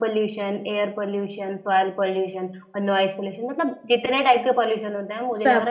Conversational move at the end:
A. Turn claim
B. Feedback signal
B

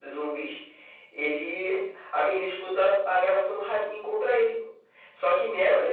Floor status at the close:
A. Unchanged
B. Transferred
A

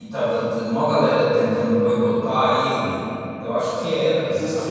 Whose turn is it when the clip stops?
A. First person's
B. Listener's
B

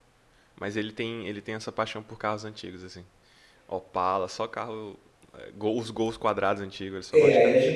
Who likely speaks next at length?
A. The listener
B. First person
A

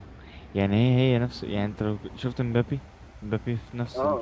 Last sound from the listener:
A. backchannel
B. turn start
B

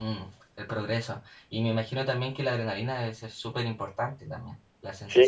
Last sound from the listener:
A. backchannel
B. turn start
B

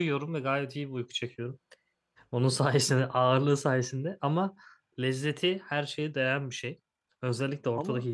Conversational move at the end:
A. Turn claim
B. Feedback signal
B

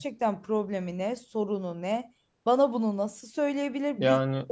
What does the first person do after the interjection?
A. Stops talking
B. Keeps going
B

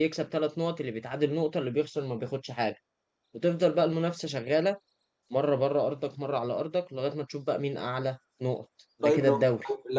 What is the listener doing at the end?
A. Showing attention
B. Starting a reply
B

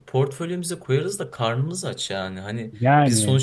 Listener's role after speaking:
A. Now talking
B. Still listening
B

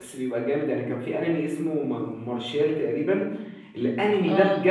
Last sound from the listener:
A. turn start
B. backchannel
B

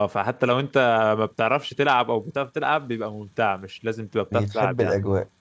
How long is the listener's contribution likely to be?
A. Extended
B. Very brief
B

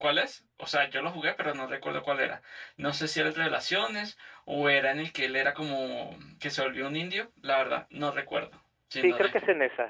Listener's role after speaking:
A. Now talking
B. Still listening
A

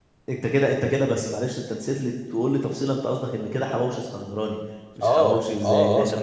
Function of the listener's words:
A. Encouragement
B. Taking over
B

